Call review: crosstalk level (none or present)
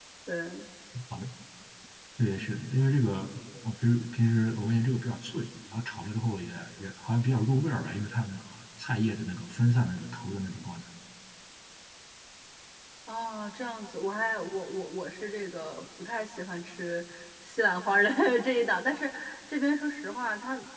none